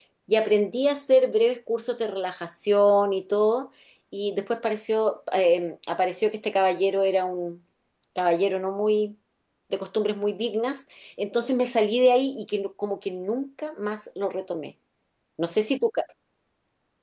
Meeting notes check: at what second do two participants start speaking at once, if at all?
none

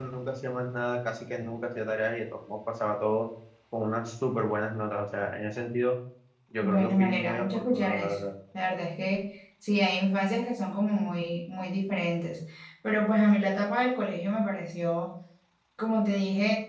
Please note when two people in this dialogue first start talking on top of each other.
6.6 s

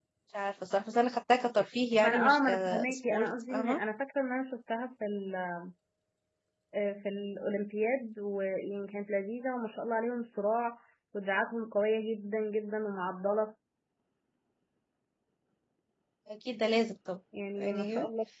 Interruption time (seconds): 2.0 s

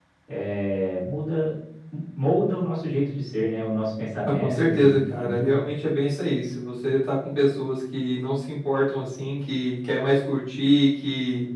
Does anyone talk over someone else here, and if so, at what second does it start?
4.2 s

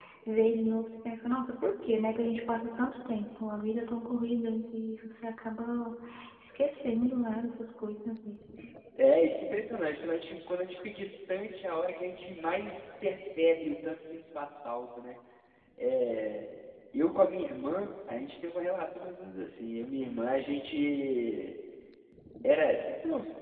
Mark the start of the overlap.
none

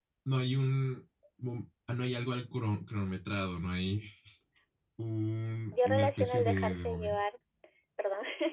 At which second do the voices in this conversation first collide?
5.7 s

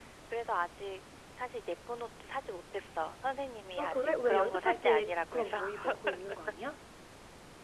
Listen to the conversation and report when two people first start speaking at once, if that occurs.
3.8 s

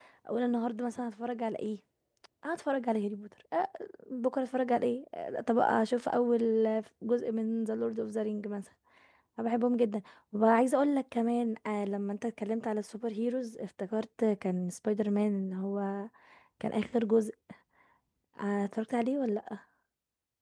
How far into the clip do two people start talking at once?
none

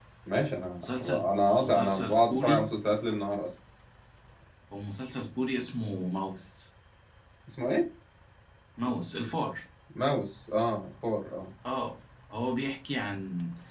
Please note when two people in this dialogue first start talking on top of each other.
0.8 s

